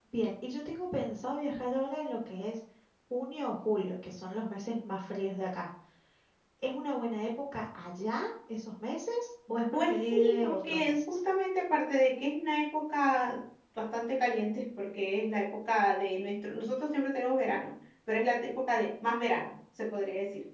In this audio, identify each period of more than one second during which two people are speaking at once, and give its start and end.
9.7-11.2

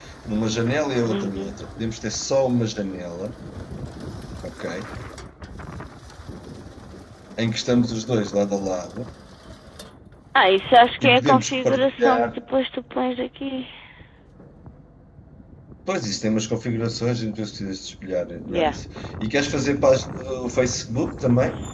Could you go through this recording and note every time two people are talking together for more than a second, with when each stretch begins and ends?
11.0-12.2

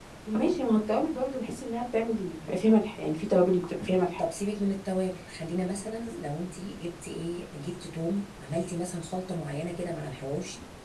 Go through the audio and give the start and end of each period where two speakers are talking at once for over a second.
none

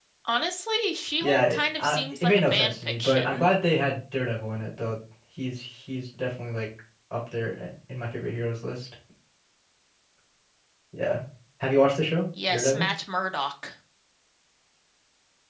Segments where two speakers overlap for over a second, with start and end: 1.2-3.5

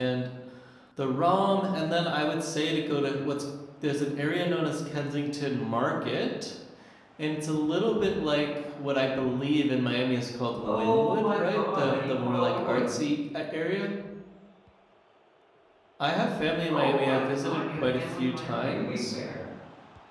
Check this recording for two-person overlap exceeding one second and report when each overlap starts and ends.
10.6-12.9, 16.7-19.2

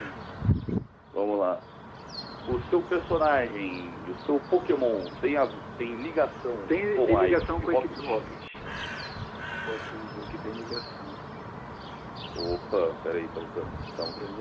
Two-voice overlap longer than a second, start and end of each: 6.7-8.2

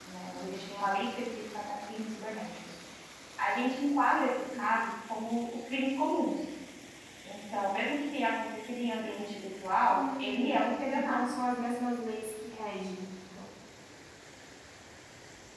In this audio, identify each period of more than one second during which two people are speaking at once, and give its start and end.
9.9-11.2

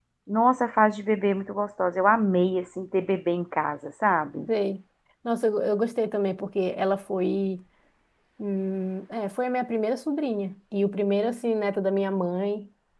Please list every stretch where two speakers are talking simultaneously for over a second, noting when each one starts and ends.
none

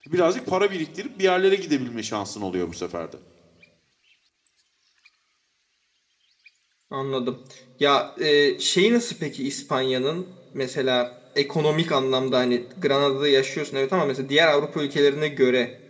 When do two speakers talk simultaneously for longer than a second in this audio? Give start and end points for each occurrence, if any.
none

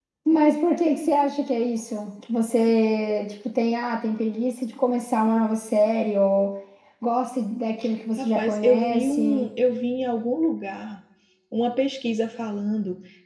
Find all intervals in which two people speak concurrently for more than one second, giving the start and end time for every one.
8.2-9.5

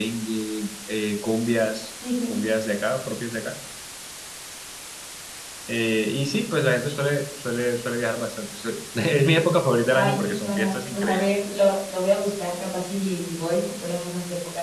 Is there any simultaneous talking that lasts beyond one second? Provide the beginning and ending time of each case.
9.9-11.2

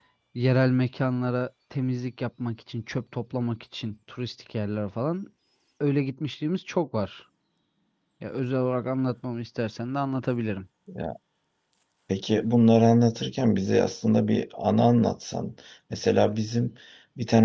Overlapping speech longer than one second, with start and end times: none

